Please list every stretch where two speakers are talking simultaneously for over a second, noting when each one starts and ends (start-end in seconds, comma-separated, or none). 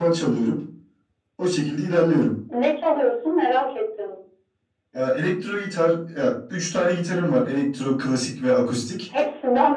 none